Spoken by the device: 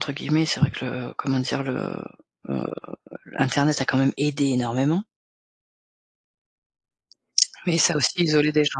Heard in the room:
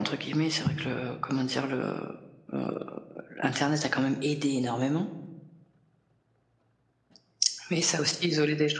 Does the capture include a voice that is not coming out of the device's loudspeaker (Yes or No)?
No